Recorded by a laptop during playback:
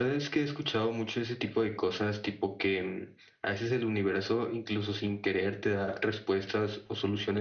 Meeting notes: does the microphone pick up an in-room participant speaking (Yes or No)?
Yes